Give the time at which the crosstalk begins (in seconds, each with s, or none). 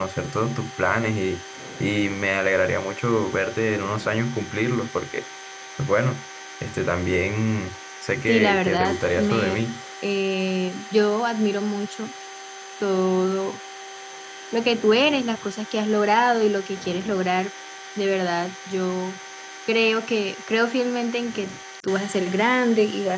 8.3 s